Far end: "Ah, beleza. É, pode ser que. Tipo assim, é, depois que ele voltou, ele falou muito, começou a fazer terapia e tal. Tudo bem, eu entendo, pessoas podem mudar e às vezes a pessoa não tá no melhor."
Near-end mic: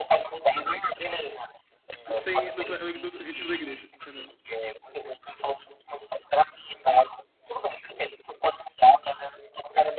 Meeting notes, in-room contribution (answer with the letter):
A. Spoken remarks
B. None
A